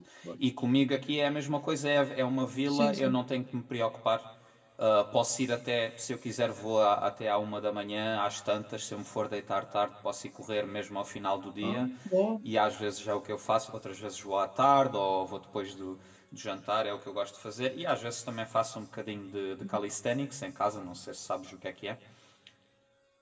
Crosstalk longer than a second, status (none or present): none